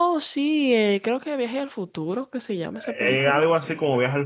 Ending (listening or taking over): taking over